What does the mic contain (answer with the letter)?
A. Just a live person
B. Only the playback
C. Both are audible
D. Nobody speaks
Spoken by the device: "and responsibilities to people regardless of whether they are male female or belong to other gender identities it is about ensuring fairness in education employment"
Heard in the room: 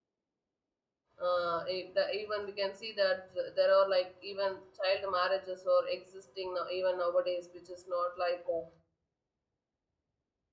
A